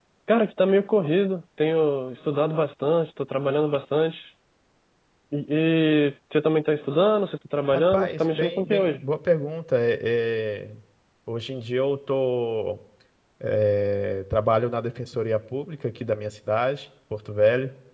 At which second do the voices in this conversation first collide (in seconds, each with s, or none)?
7.7 s